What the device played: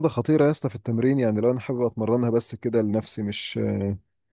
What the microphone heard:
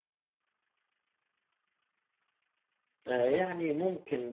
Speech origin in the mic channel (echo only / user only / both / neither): user only